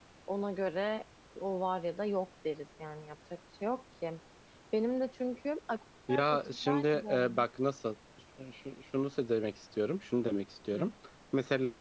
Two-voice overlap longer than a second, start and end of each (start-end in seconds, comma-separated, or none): 6.1-7.5